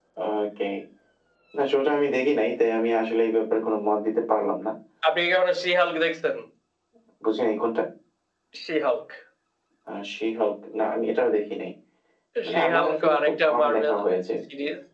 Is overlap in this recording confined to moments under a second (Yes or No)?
No